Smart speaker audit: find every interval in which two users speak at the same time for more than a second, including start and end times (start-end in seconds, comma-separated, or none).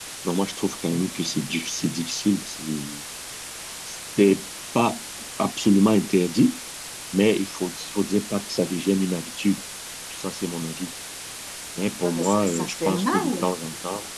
12.0-13.5